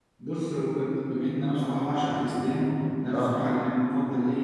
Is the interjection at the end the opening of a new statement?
No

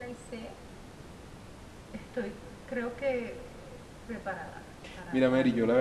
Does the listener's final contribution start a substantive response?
Yes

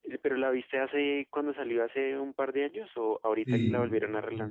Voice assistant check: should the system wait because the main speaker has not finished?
No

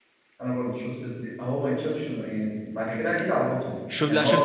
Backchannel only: No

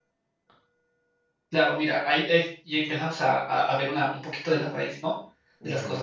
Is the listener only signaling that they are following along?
Yes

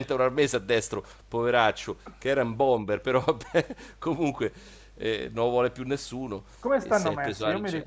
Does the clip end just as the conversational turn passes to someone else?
Yes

